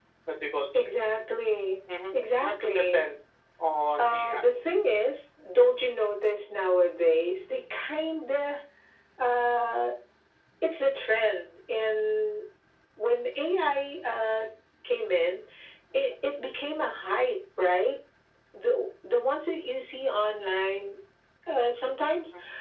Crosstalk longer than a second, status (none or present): present